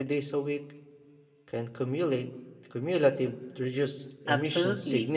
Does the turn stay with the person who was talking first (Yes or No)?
No